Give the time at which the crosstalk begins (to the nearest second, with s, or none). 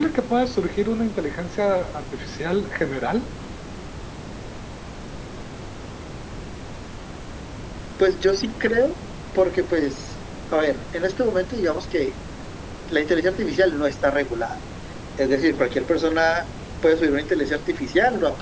none